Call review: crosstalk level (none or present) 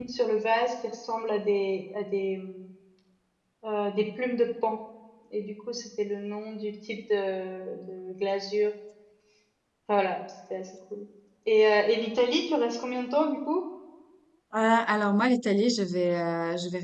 none